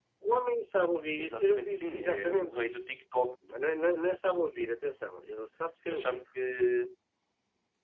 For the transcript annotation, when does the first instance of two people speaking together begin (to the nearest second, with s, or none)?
1 s